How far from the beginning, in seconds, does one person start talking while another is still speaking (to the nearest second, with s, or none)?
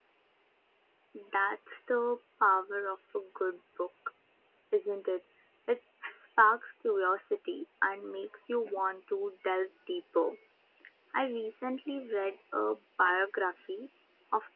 none